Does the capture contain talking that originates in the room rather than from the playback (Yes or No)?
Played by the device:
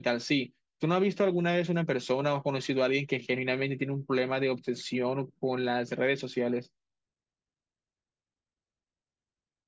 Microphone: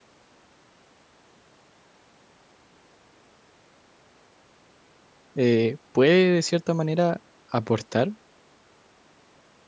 Yes